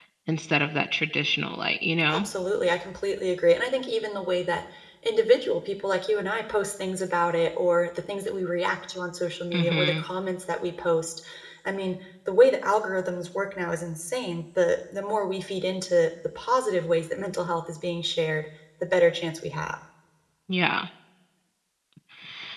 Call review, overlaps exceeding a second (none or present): none